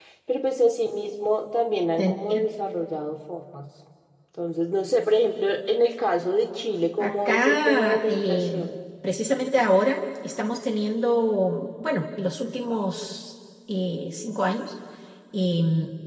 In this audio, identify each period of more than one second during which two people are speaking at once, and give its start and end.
7.0-8.5

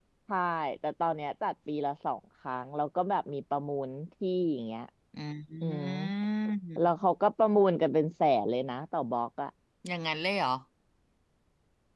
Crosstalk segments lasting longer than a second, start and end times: none

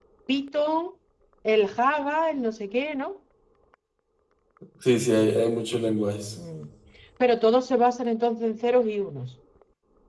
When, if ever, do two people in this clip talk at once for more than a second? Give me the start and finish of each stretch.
none

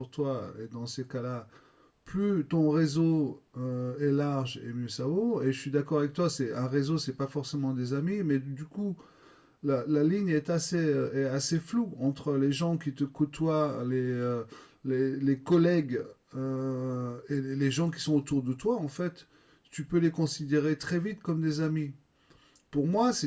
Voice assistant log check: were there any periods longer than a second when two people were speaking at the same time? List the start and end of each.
none

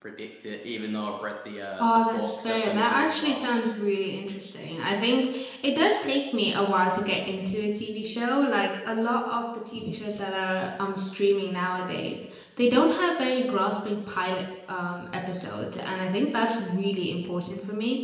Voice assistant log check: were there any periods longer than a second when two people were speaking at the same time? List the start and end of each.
1.8-3.4

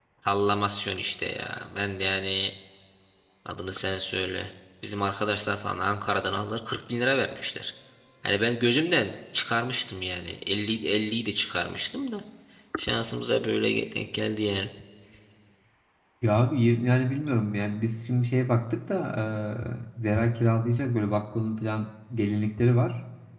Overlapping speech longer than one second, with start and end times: none

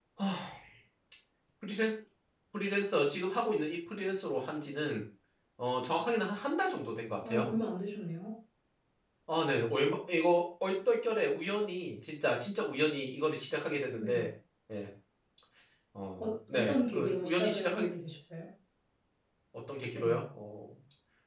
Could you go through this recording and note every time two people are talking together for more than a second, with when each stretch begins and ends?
16.2-17.9

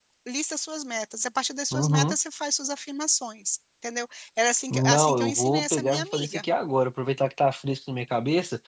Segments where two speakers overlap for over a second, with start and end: 4.7-6.4

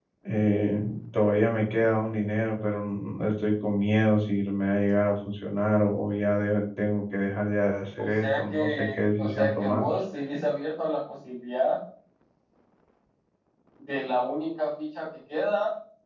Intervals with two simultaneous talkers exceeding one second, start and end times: 8.0-9.9

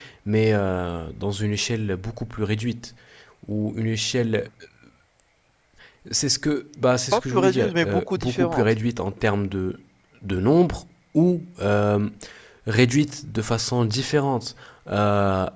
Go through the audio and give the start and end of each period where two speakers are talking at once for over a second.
7.1-8.6

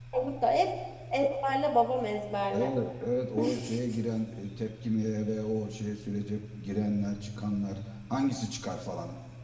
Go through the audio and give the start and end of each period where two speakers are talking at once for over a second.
none

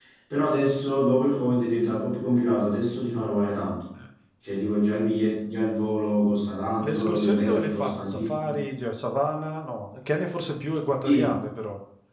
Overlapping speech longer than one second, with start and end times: 6.8-8.6

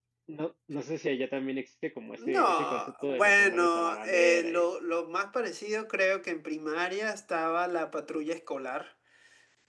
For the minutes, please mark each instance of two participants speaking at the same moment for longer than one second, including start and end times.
2.3-4.7

